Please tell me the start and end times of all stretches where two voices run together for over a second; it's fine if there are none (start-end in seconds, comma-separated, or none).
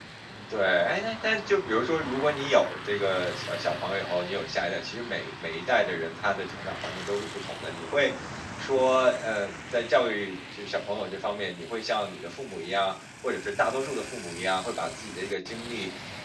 none